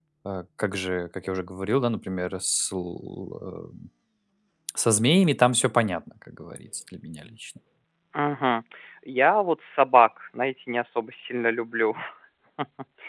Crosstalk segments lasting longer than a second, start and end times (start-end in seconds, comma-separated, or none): none